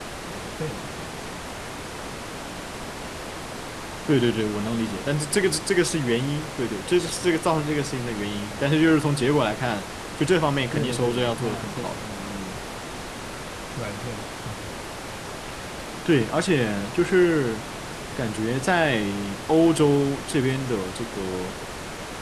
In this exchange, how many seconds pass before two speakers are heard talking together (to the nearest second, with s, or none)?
11 s